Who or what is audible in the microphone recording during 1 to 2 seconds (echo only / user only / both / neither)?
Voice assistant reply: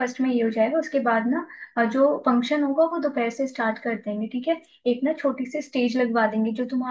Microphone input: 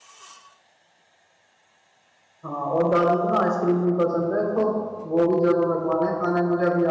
neither